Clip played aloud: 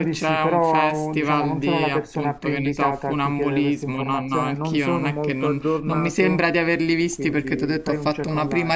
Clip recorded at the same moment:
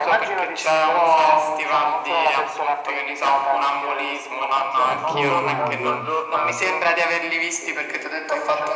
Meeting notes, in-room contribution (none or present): present